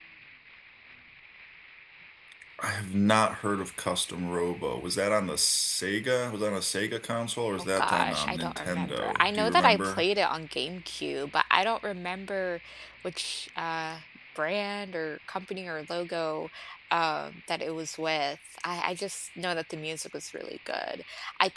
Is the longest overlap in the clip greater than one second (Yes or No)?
Yes